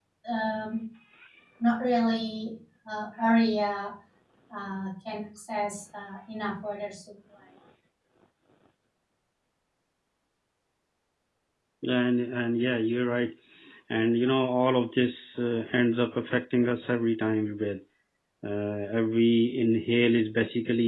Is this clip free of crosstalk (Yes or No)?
Yes